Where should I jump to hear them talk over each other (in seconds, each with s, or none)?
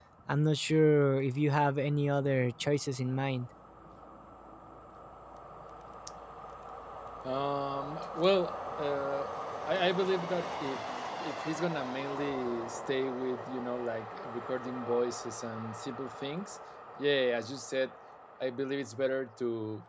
none